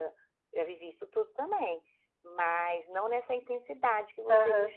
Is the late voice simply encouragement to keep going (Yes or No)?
No